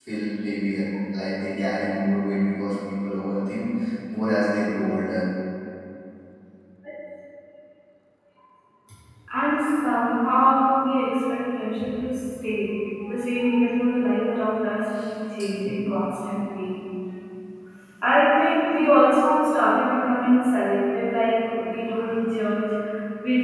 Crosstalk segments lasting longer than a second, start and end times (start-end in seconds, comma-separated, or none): none